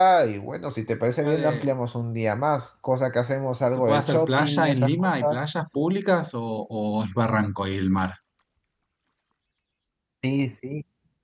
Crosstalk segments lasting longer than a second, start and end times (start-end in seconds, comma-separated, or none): 3.8-5.4